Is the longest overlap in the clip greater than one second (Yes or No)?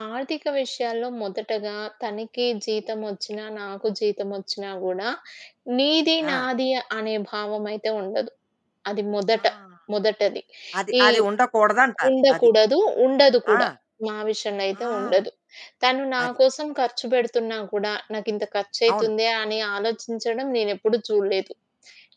No